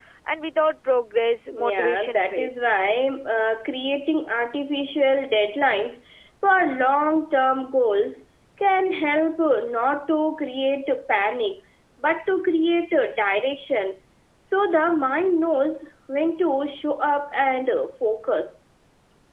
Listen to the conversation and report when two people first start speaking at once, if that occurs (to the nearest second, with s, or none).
2 s